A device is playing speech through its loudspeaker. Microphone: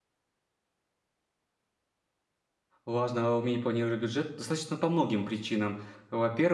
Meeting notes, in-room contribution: present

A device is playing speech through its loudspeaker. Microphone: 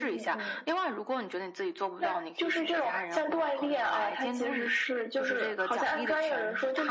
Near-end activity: none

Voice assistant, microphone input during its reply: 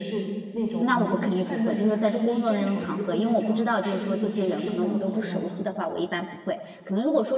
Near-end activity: present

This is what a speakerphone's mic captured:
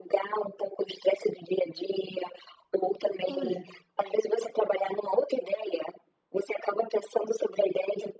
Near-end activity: present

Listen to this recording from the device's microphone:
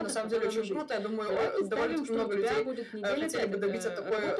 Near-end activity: none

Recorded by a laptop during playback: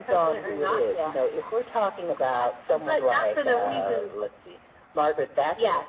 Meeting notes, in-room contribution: none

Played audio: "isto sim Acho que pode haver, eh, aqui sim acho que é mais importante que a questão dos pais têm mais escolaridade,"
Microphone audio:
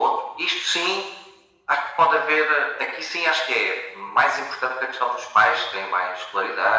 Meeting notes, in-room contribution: none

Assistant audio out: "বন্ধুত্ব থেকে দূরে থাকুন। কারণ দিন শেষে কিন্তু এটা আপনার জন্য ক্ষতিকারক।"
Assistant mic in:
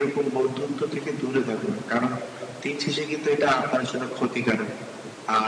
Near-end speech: none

